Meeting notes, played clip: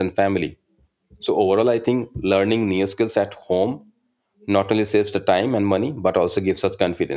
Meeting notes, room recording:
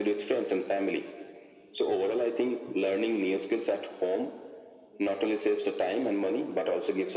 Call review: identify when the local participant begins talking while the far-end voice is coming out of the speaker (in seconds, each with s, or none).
none